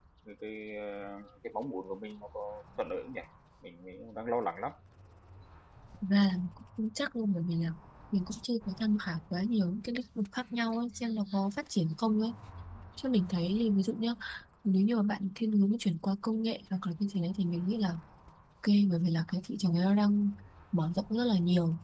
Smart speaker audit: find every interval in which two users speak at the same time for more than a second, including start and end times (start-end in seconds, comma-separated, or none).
none